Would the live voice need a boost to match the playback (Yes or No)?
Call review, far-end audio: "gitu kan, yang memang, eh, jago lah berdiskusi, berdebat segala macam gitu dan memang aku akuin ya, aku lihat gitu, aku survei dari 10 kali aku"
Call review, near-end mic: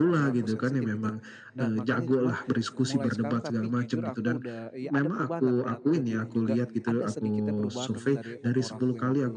Yes